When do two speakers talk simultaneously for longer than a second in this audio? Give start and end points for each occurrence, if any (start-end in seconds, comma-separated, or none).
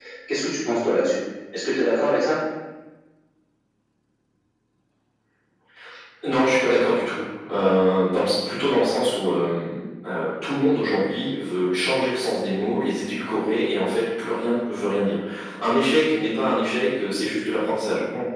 none